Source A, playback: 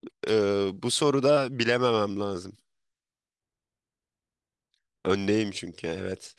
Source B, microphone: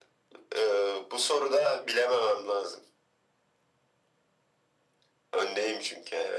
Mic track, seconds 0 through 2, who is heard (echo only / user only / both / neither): echo only